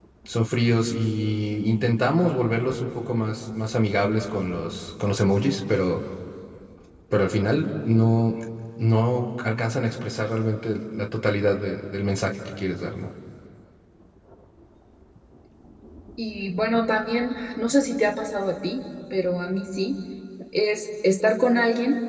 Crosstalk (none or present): none